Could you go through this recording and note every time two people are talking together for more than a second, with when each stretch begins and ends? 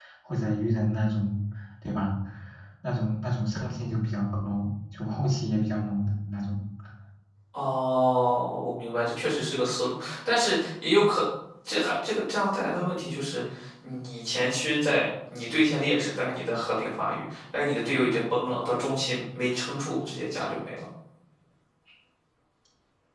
none

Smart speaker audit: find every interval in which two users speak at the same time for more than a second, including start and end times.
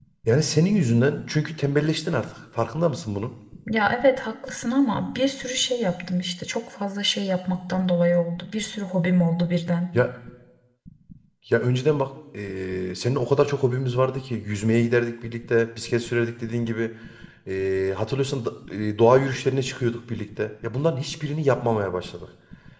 none

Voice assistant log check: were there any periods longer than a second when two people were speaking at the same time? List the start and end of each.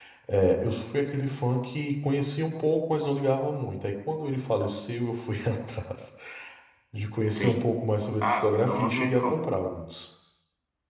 8.2-9.5

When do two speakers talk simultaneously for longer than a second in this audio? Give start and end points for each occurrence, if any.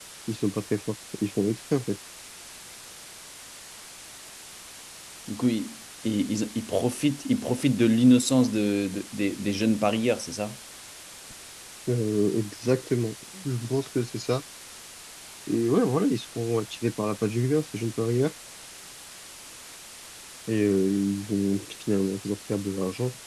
none

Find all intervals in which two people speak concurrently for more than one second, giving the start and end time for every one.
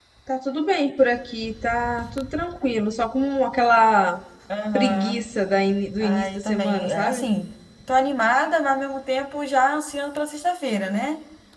6.0-7.3

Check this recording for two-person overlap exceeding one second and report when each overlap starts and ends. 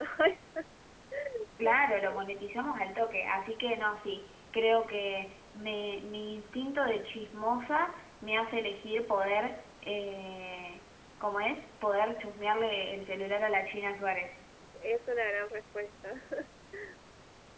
none

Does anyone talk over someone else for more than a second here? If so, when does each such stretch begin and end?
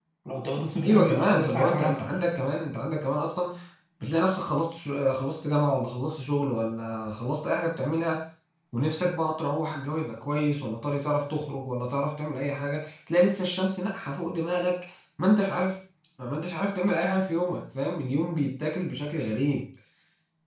0.8-2.0

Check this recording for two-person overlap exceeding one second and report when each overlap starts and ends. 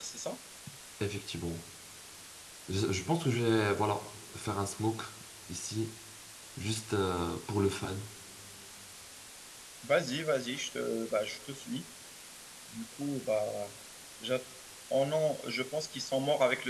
none

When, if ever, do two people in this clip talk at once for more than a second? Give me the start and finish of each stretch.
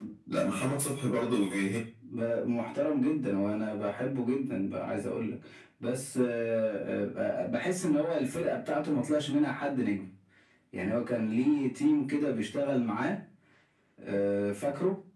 none

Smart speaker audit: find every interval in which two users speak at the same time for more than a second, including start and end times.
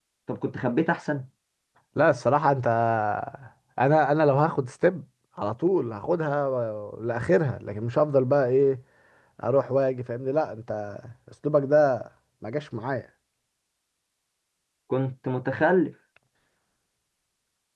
none

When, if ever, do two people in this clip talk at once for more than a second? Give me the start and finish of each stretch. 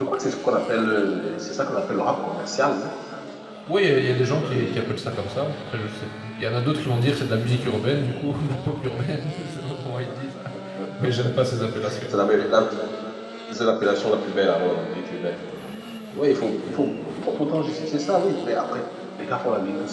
none

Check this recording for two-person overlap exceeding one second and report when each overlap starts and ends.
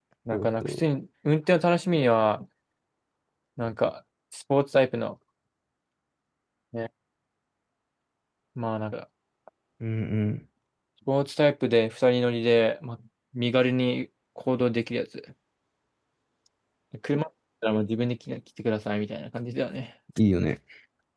none

